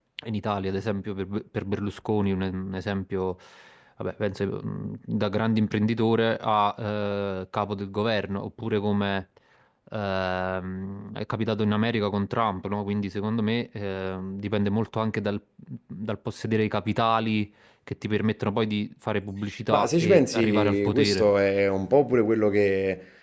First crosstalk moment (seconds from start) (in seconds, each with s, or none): 19.7 s